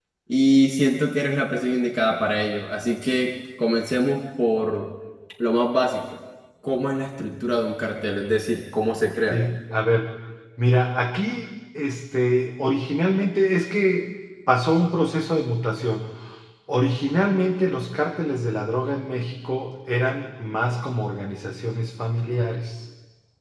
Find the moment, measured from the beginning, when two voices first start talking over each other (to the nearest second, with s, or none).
none